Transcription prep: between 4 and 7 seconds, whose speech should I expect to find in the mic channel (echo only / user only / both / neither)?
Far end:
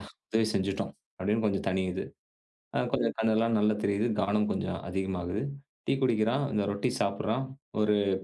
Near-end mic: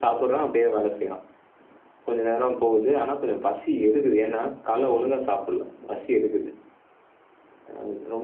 user only